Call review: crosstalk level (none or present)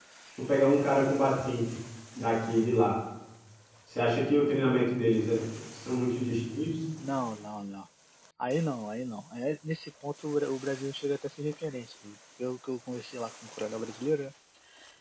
none